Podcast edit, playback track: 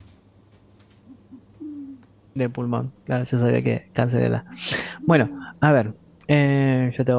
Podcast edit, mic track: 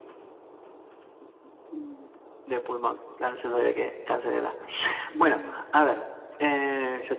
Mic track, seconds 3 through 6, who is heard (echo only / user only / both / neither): echo only